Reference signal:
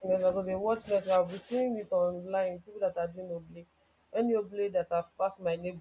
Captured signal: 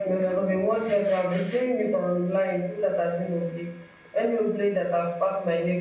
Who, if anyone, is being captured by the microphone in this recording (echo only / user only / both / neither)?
echo only